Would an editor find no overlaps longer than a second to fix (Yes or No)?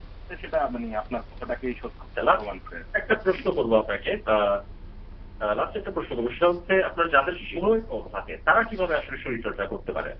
Yes